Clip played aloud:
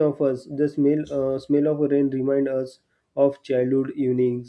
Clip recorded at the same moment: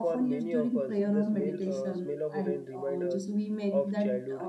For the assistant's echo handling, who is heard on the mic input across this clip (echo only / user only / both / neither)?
both